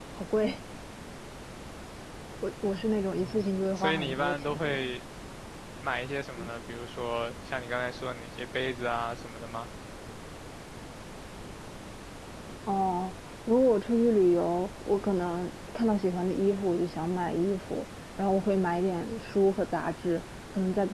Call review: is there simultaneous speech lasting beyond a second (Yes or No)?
Yes